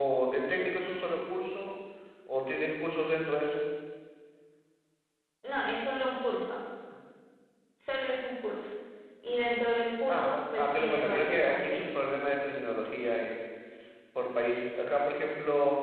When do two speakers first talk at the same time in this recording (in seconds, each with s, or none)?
10.1 s